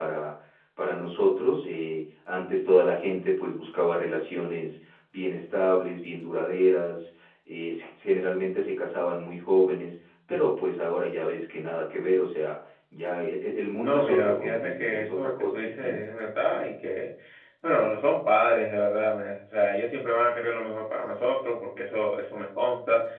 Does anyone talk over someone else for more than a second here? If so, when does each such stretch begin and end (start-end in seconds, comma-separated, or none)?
13.8-16.1